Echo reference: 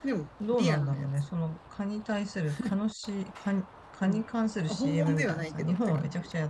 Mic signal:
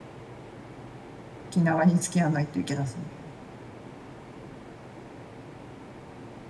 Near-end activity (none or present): present